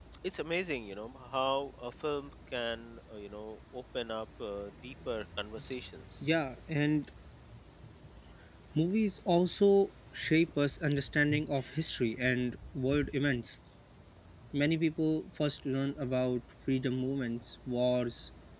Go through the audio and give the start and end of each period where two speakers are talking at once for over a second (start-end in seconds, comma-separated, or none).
none